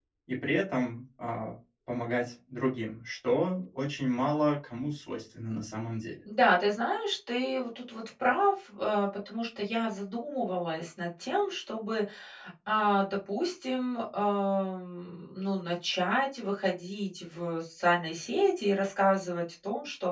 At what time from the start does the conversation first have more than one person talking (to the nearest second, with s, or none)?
none